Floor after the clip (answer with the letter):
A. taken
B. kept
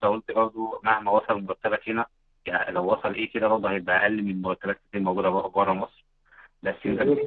B